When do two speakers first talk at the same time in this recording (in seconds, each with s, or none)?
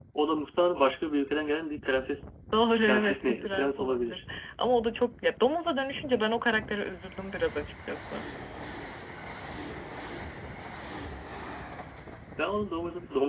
2.8 s